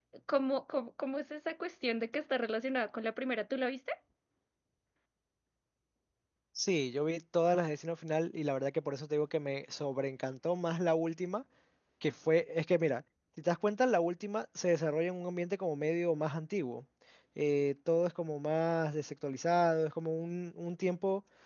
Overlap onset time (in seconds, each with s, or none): none